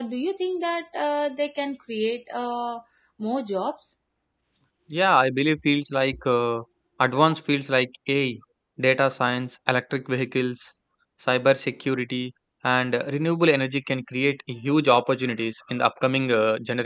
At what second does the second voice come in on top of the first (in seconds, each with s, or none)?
none